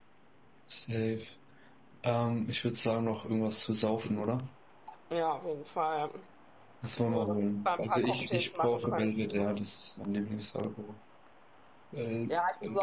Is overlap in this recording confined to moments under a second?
No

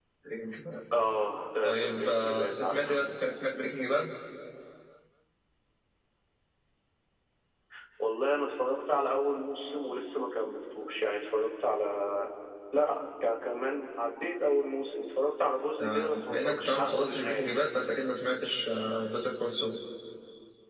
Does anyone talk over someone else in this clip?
Yes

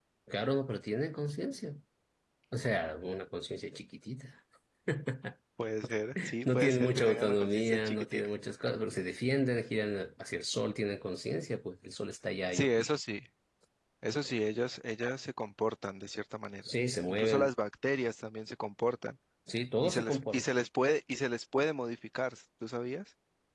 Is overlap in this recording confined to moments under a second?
No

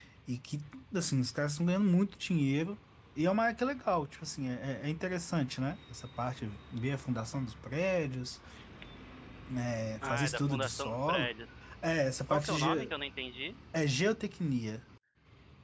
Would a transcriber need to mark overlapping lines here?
Yes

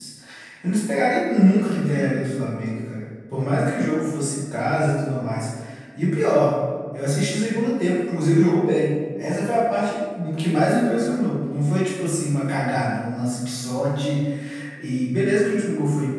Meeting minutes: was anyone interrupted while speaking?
No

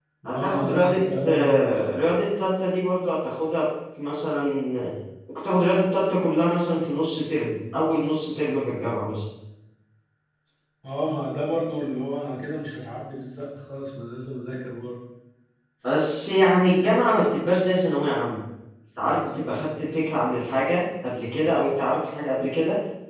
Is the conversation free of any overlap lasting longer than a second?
No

